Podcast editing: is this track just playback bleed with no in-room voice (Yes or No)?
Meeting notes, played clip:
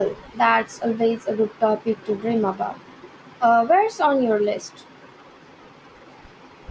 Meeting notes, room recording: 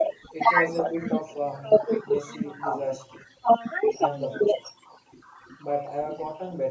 No